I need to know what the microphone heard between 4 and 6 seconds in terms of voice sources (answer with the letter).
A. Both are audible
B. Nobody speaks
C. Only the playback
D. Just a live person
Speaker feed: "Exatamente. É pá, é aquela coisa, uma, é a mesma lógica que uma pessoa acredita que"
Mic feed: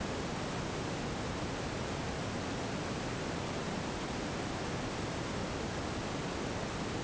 B